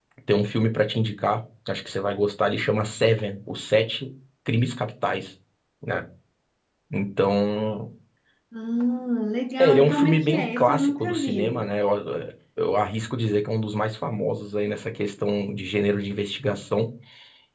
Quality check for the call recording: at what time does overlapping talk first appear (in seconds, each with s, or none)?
9.6 s